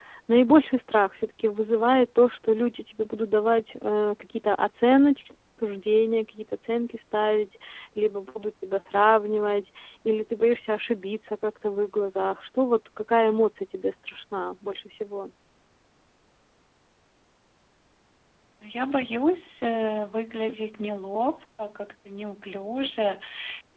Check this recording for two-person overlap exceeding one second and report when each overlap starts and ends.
none

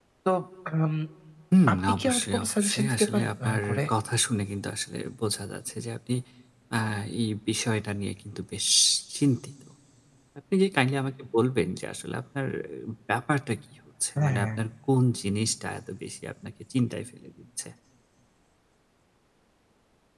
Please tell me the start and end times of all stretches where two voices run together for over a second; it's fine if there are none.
1.7-3.8

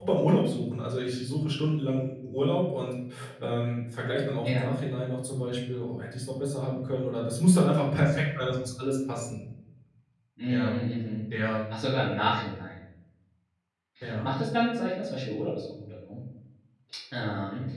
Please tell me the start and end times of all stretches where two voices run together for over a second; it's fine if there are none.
none

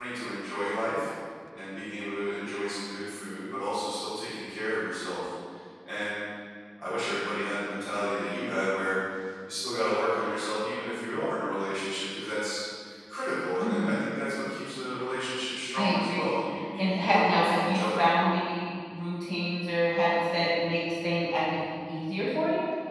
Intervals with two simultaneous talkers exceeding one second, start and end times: 16.8-18.0

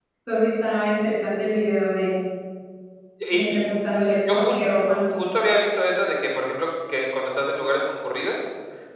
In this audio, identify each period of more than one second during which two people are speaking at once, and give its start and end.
none

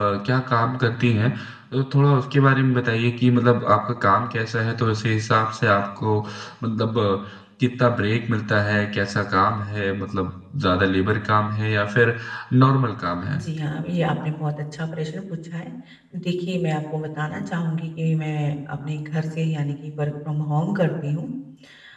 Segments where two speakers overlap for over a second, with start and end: none

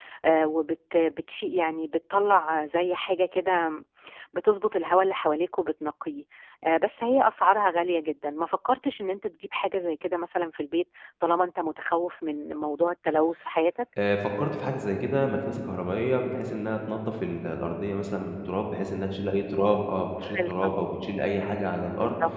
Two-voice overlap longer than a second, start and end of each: none

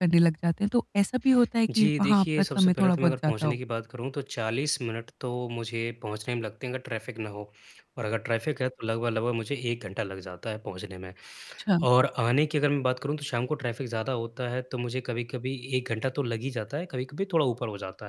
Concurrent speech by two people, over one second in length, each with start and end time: 1.8-3.6

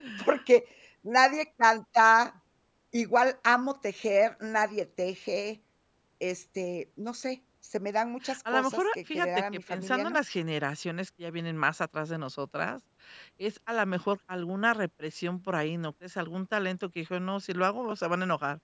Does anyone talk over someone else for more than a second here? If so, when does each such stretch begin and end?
8.5-10.2

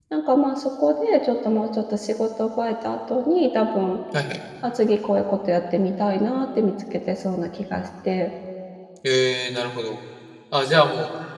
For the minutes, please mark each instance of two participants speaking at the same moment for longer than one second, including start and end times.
none

